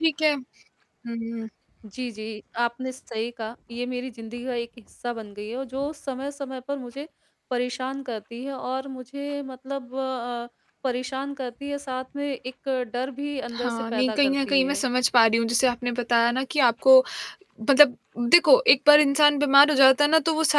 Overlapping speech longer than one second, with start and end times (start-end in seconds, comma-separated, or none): 13.5-14.8